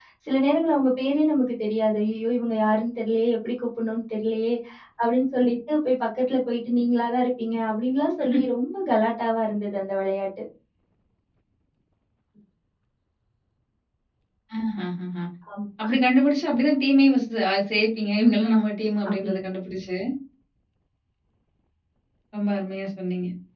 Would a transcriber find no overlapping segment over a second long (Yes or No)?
Yes